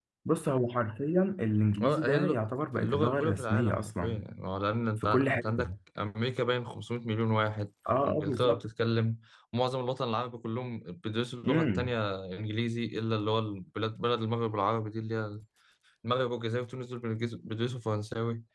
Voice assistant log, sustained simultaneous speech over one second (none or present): present